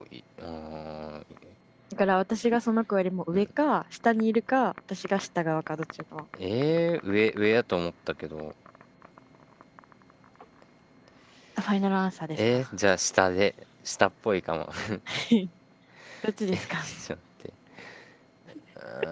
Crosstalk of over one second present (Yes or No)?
No